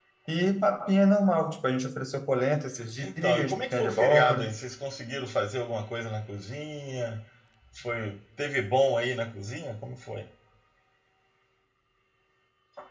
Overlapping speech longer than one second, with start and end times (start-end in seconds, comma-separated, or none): 3.0-4.5